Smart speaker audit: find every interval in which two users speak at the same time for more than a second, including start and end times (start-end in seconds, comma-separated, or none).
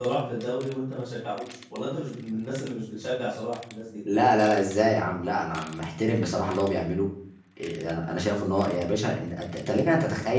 none